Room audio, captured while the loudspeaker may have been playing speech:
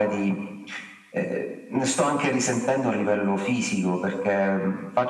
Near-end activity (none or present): none